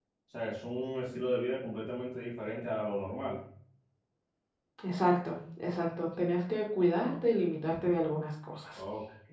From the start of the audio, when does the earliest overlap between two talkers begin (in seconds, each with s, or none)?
none